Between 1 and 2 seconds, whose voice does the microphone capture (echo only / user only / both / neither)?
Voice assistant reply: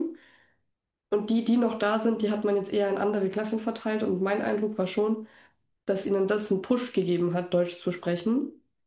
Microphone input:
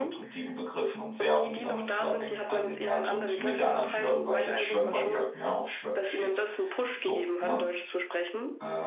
both